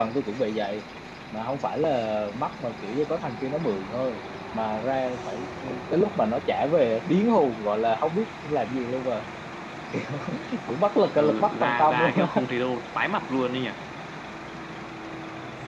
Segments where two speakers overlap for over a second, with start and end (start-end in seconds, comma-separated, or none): 11.1-12.4